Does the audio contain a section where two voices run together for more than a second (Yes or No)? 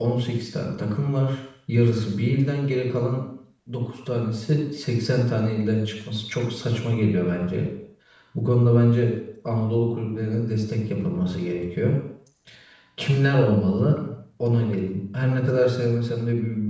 No